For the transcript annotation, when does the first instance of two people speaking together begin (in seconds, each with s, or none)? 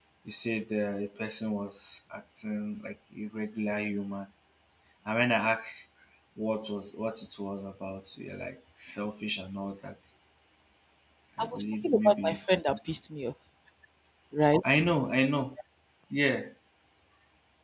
11.4 s